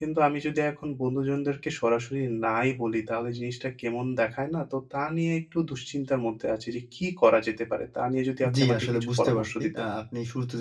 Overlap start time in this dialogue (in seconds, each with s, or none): 8.4 s